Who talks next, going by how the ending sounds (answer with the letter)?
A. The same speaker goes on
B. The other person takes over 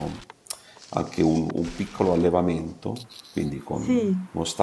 A